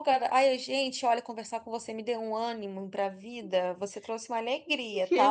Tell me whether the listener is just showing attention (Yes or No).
No